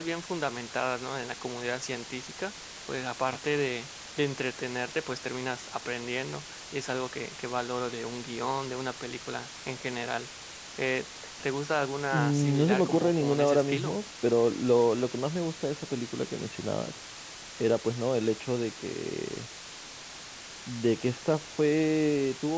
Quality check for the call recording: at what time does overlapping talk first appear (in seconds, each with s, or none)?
12.1 s